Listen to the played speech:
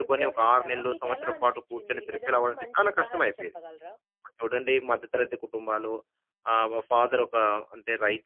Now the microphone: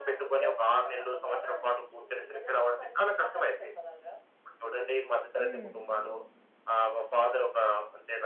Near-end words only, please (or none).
హ్మ్.